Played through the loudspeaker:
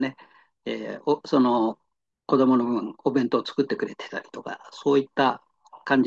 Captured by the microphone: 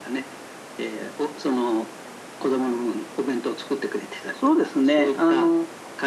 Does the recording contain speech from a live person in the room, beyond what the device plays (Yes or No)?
Yes